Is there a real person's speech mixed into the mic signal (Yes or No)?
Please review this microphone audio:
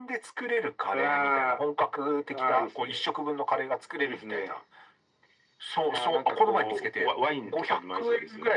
No